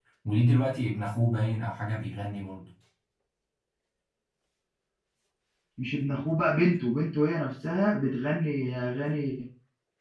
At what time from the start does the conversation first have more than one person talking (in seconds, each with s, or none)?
none